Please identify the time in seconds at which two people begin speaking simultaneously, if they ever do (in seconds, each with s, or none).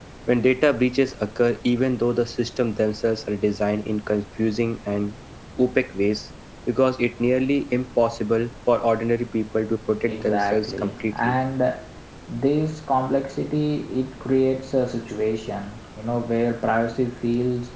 10.1 s